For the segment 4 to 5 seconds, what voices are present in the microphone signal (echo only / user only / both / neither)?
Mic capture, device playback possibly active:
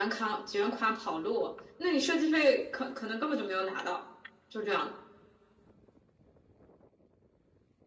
echo only